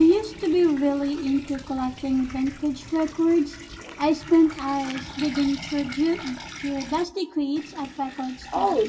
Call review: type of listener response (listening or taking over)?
taking over